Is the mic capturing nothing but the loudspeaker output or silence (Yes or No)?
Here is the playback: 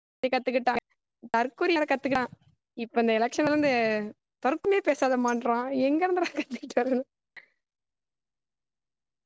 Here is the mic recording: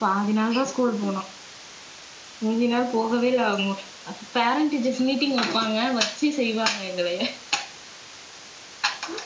No